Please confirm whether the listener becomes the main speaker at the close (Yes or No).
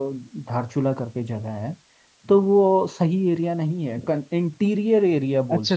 Yes